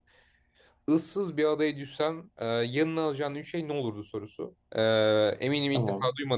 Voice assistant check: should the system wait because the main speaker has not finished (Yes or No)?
Yes